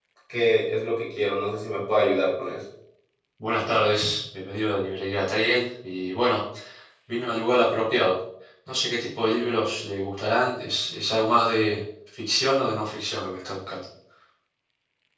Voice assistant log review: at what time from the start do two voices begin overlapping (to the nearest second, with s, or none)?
none